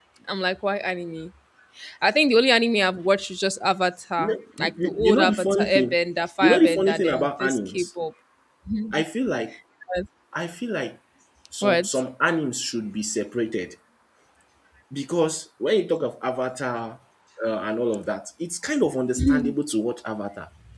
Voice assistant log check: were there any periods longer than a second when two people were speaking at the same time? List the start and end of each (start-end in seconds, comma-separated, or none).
4.2-6.0, 6.4-7.9